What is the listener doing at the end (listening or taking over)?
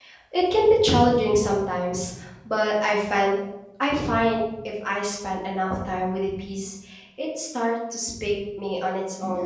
taking over